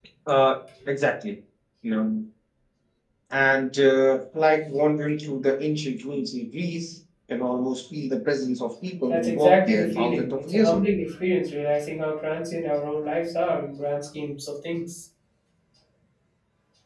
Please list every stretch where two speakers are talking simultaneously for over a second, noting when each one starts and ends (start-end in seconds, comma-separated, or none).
9.1-10.8